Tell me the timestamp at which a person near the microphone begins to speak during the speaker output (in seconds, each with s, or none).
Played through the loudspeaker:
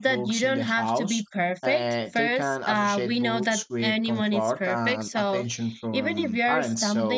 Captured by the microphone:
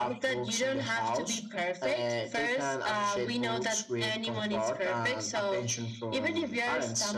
none